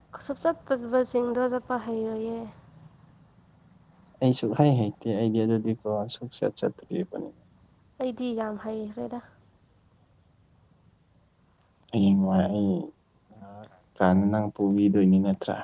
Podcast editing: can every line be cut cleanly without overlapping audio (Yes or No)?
Yes